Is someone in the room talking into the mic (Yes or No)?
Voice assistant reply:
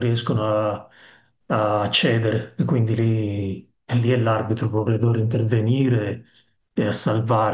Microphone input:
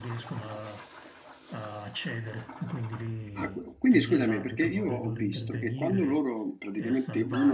Yes